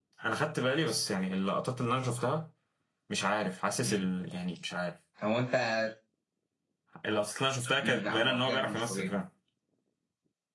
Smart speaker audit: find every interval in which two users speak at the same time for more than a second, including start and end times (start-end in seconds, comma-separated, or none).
7.8-9.1